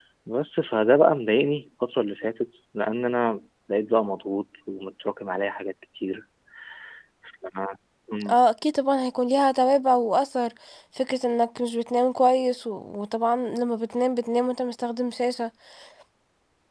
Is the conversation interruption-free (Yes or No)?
Yes